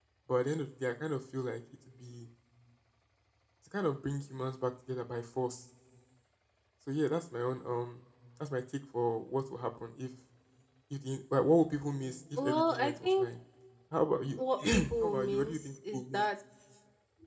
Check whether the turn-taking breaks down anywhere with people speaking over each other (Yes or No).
Yes